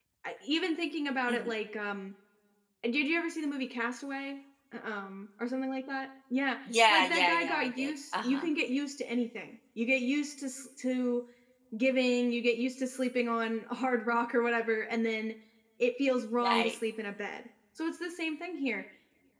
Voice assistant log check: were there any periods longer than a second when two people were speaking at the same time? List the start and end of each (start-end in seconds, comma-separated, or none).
6.9-8.4